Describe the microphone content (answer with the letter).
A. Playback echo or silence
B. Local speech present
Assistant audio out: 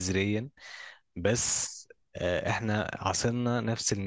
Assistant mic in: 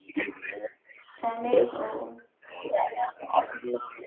B